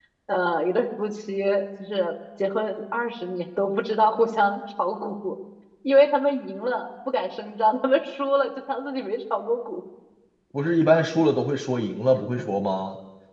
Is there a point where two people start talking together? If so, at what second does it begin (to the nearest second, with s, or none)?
none